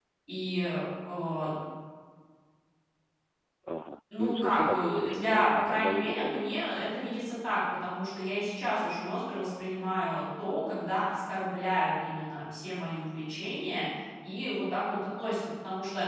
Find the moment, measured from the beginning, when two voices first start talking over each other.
4.2 s

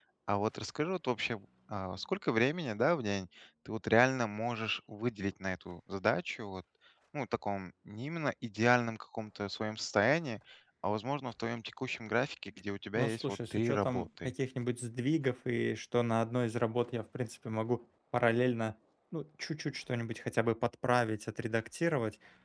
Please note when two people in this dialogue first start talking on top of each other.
13.0 s

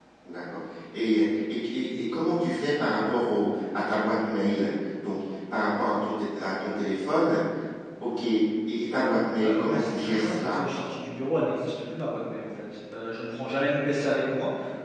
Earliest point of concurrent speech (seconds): 9.4 s

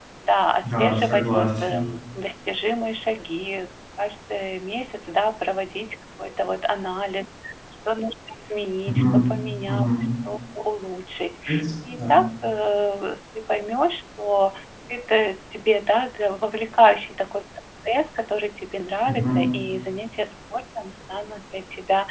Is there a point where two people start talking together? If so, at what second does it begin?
0.6 s

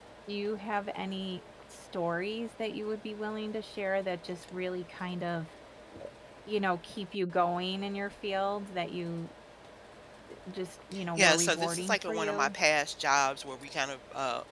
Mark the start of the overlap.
11.2 s

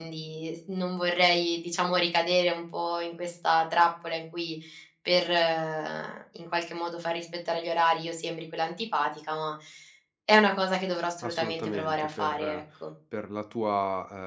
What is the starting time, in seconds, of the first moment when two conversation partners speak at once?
11.2 s

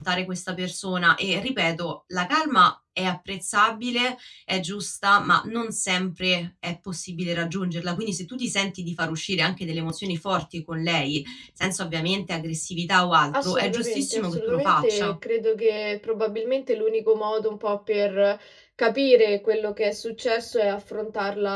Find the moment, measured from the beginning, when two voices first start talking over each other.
13.3 s

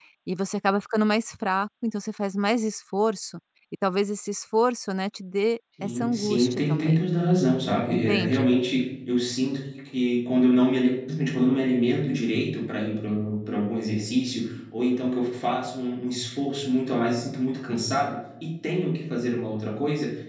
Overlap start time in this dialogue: 5.8 s

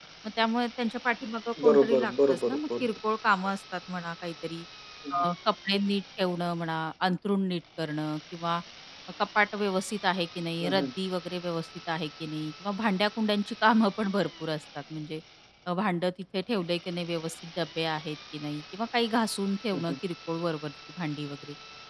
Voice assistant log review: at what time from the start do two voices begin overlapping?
1.6 s

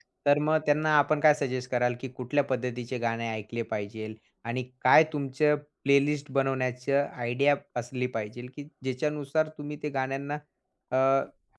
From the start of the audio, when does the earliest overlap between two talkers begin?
none

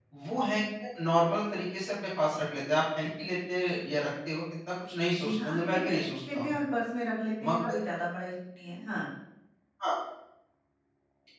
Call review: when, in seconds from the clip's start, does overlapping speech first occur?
5.2 s

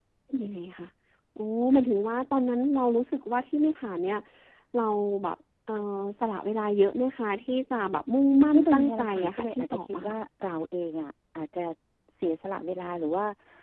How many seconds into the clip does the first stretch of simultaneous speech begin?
8.5 s

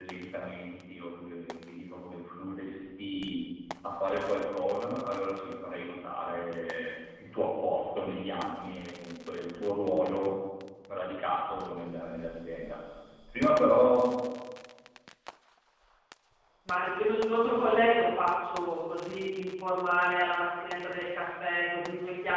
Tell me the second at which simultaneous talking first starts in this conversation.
none

